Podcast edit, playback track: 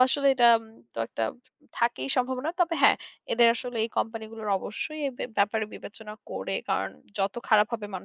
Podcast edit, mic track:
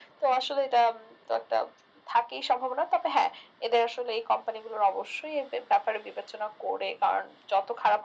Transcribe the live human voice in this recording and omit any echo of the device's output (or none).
none